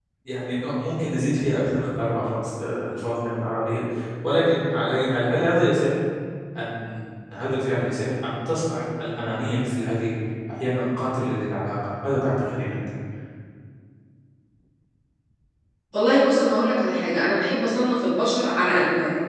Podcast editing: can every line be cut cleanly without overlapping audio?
Yes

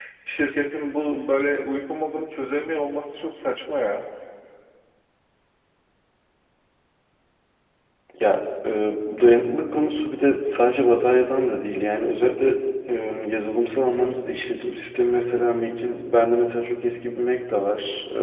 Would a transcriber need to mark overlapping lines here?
No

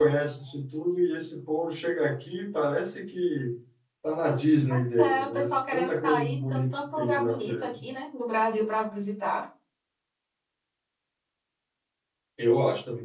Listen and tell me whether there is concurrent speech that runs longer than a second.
Yes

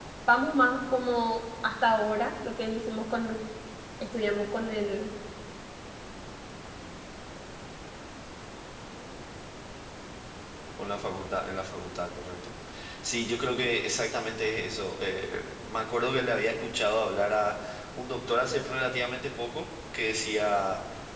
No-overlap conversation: Yes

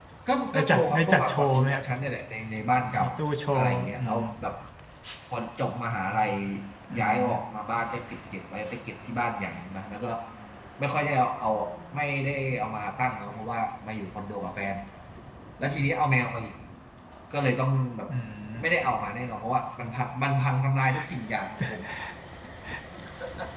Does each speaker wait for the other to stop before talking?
No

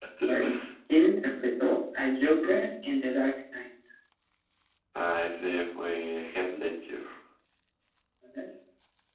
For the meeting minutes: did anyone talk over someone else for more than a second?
No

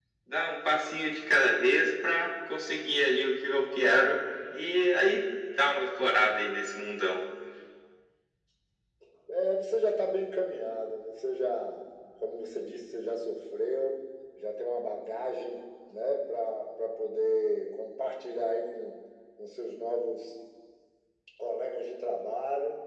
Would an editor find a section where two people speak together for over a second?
No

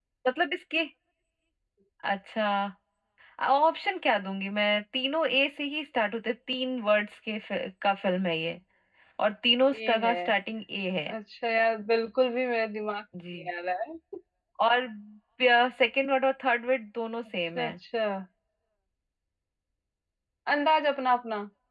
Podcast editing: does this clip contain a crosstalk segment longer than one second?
No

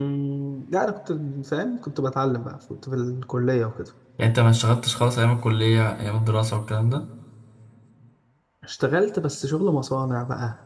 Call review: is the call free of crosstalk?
Yes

